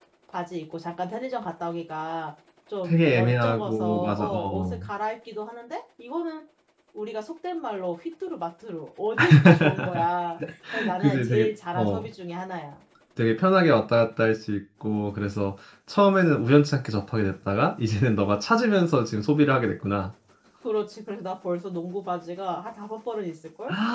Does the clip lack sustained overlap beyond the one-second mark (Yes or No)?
No